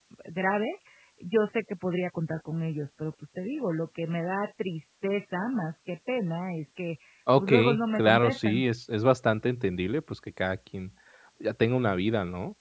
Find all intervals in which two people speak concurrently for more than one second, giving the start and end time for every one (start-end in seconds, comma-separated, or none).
7.4-8.6